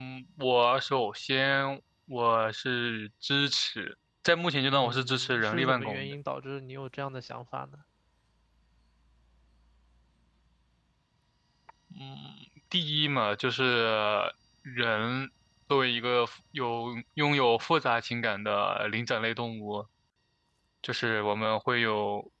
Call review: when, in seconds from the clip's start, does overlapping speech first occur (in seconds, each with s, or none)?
4.7 s